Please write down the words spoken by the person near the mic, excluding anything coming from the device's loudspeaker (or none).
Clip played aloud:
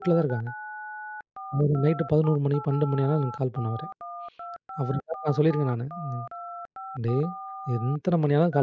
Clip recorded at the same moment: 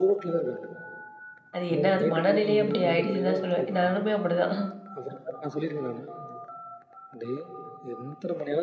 அது என்ன அது மனநிலையே அப்படி ஆயிடுச்சுன்னு தான் சொல்லுவேன். நானுமே அப்படிதான்.